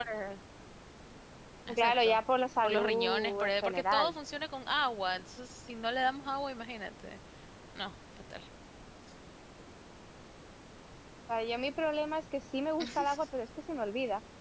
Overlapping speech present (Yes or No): Yes